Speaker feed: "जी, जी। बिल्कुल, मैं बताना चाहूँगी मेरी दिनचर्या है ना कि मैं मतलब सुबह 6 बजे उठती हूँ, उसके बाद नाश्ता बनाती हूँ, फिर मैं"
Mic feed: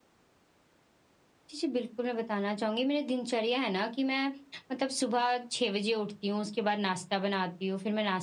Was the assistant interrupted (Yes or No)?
No